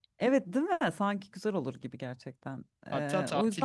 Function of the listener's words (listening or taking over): taking over